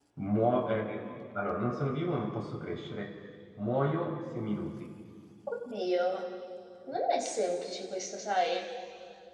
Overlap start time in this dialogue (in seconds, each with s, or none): none